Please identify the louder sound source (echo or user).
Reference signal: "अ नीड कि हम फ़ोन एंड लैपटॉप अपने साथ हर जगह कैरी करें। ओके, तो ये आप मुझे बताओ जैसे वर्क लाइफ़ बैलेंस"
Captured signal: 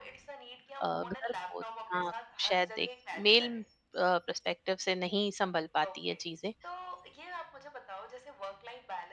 user